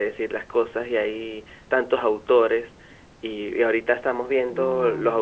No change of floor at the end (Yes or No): Yes